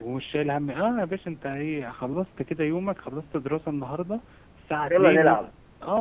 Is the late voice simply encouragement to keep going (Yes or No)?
Yes